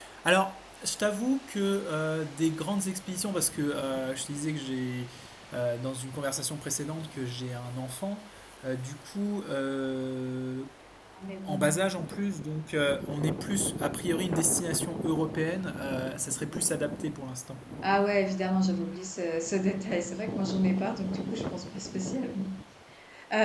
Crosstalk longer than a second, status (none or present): none